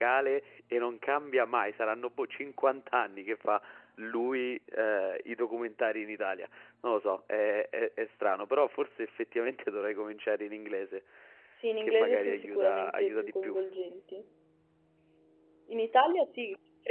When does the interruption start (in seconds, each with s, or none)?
11.8 s